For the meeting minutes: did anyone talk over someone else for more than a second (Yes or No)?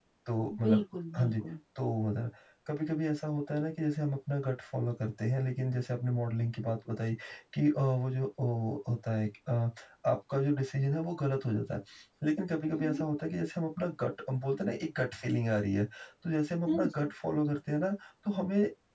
No